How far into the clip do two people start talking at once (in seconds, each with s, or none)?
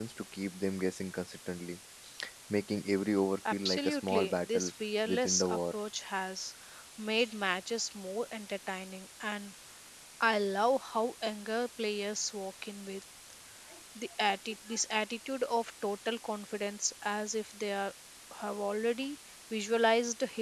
3.5 s